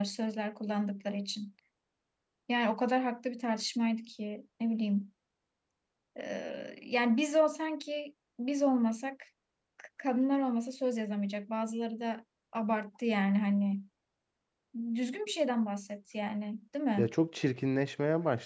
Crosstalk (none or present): none